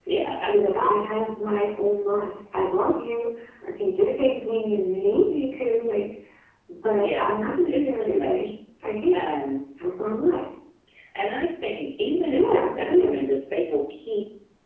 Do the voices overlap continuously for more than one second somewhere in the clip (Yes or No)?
Yes